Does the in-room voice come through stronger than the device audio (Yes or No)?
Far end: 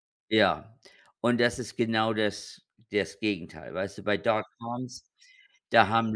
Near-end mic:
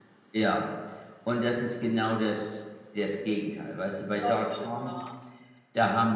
No